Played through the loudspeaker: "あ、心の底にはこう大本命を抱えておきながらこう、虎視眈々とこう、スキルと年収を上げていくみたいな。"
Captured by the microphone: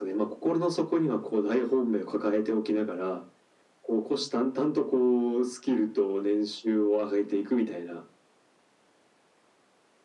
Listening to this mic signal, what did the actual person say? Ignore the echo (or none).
none